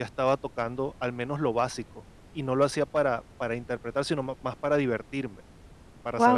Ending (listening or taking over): taking over